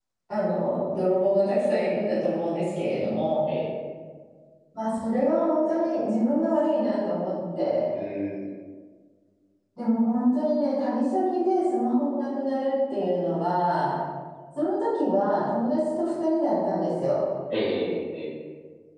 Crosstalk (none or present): none